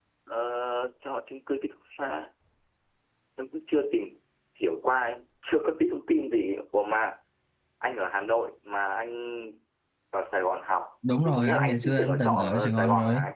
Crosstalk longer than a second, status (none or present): present